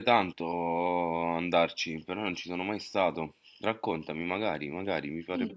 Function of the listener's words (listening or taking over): taking over